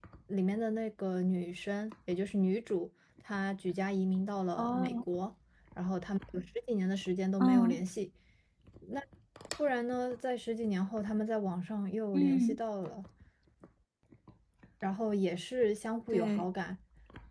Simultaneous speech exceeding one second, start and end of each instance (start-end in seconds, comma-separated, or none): none